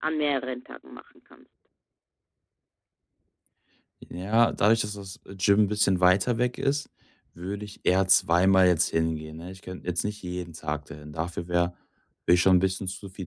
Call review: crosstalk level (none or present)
none